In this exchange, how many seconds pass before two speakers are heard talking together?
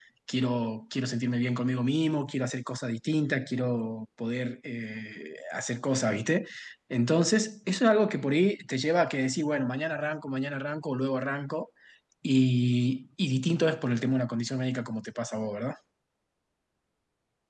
none

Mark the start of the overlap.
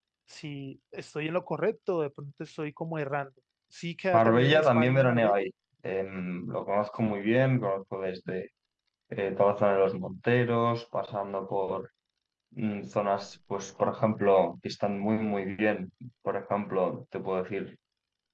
4 s

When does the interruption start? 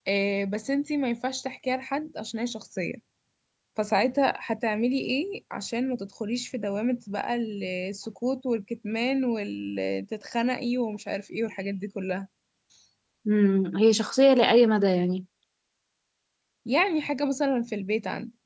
none

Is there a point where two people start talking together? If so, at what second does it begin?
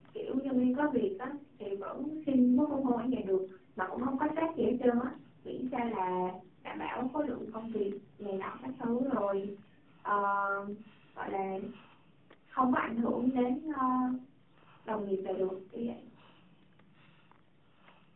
none

